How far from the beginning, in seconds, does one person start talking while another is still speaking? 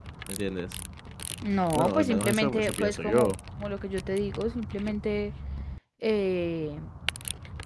1.8 s

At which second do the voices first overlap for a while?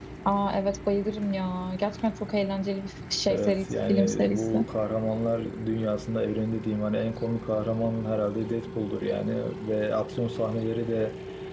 3.3 s

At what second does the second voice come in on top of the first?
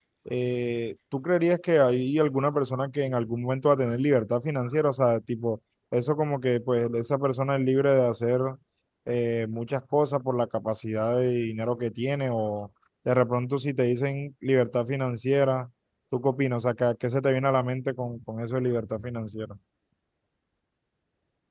none

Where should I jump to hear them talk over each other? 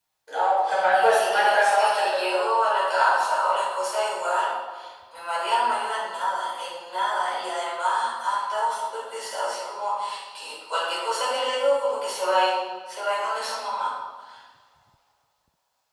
0.9 s

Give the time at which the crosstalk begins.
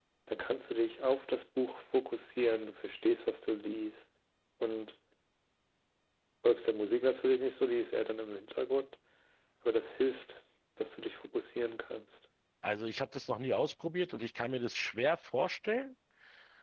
none

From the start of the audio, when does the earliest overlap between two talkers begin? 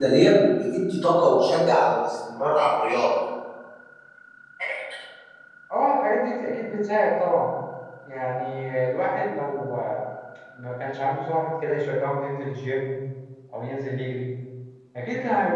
none

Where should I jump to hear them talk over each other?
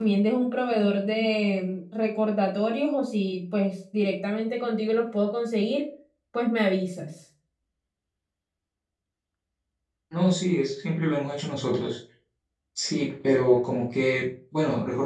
none

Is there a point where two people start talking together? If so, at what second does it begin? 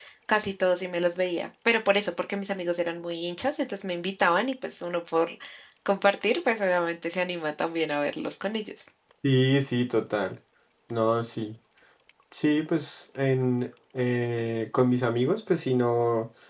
none

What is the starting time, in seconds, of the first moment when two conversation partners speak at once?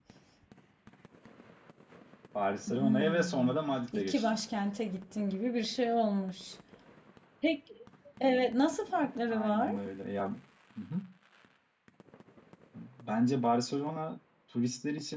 2.7 s

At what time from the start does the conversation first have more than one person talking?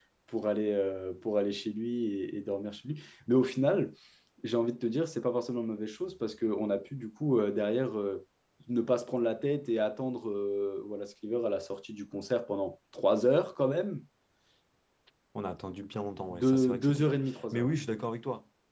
16.3 s

